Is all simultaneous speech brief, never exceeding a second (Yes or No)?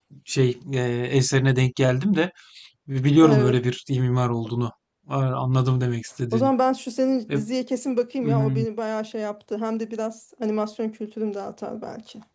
Yes